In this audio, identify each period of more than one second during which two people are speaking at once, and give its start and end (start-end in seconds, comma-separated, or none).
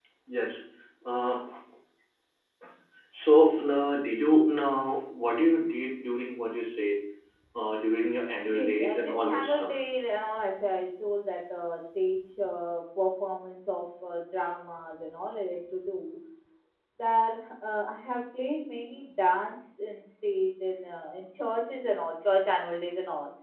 8.5-9.8